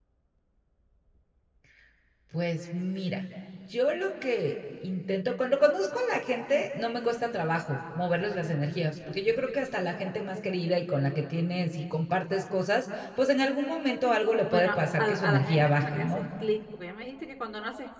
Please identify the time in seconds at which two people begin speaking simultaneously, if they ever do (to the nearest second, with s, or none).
15 s